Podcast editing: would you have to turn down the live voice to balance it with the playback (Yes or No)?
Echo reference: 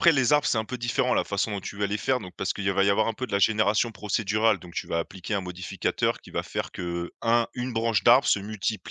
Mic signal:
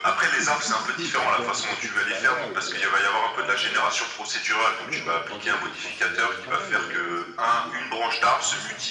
No